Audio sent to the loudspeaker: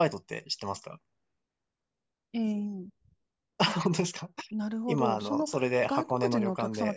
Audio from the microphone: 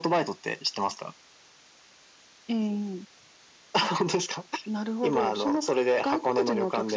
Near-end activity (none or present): none